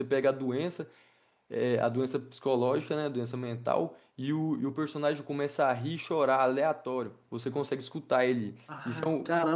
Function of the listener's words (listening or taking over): taking over